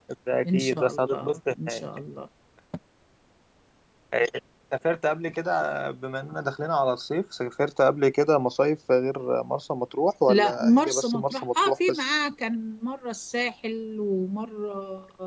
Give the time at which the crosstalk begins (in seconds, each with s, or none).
0.5 s